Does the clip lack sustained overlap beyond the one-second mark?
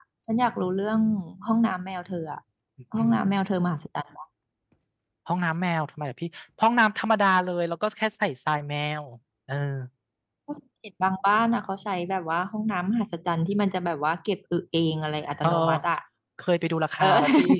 Yes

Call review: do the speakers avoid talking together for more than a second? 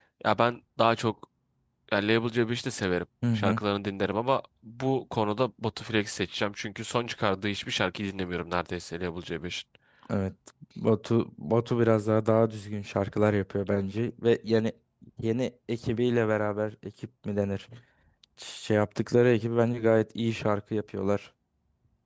Yes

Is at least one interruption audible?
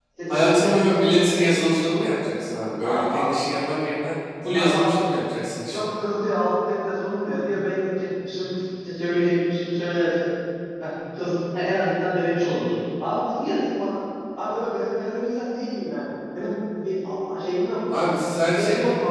Yes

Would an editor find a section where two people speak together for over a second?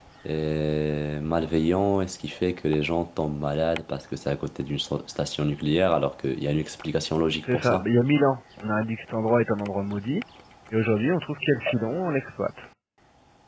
No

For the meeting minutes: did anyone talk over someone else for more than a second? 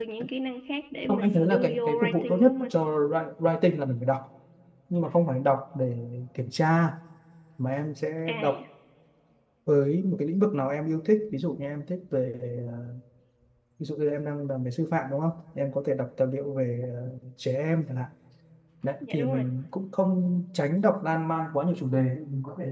Yes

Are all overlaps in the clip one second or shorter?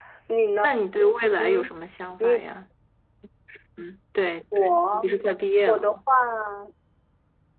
Yes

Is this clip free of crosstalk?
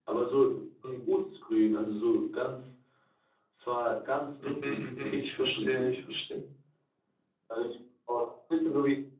No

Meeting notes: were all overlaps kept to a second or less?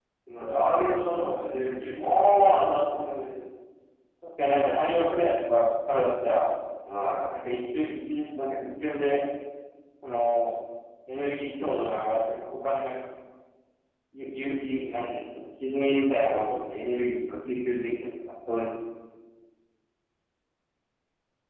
No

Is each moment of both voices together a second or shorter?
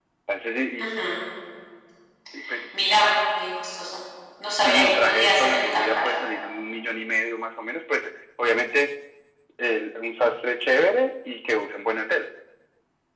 No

